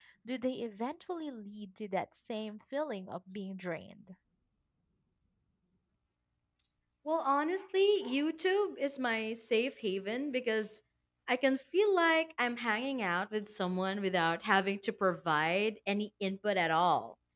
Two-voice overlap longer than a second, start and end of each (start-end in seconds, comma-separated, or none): none